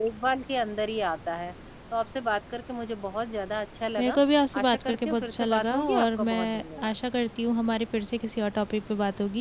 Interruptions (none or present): present